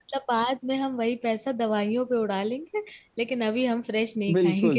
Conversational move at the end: taking over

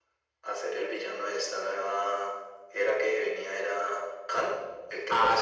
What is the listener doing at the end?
taking over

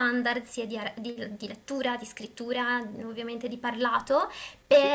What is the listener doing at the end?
listening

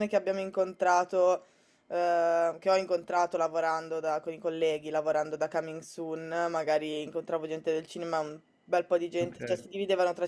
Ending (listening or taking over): listening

